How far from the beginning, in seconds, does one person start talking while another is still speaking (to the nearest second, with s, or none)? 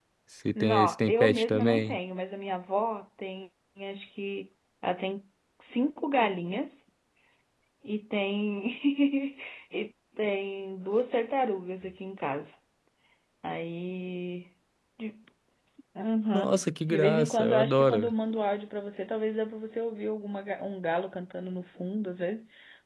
1 s